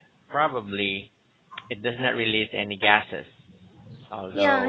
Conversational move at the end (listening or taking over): taking over